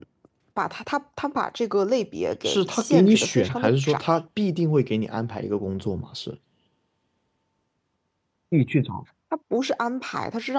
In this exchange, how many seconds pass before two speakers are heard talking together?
2.4 s

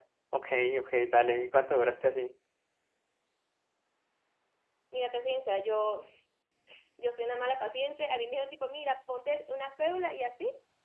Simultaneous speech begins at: none

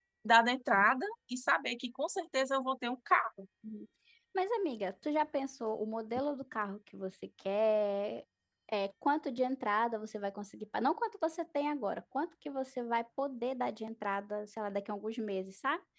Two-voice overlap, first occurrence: none

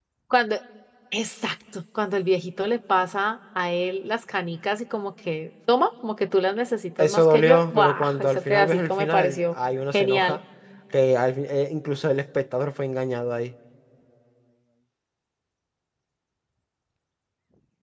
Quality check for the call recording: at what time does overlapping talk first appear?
7.0 s

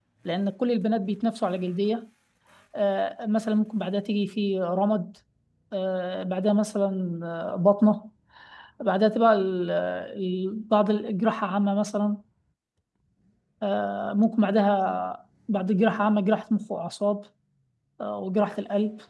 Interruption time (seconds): none

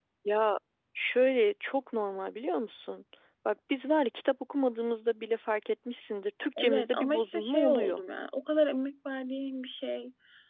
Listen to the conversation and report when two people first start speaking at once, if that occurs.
6.6 s

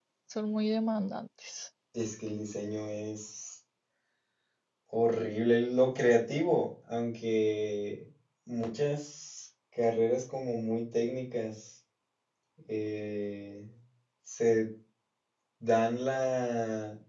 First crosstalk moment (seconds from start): none

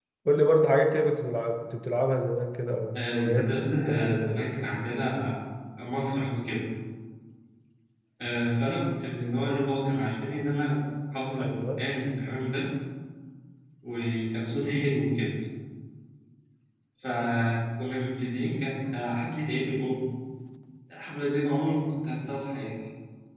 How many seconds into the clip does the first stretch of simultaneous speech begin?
3.0 s

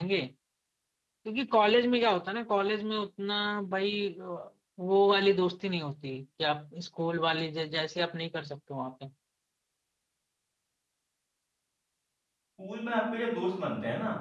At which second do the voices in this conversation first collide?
none

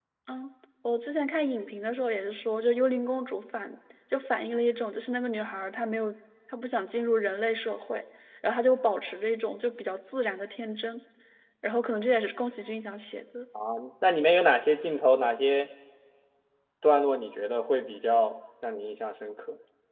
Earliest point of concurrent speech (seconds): none

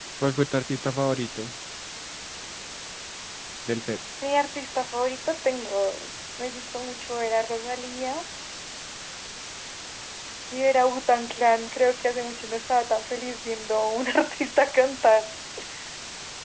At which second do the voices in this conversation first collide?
none

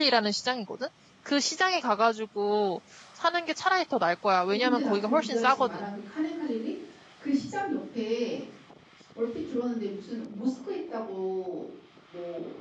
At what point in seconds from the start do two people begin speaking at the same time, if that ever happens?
4.5 s

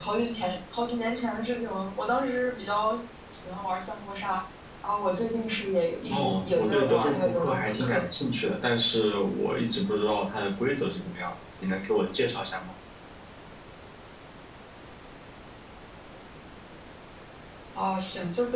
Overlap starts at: 6.1 s

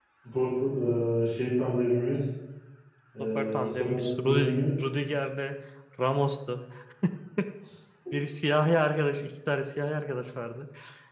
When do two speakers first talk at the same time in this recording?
3.2 s

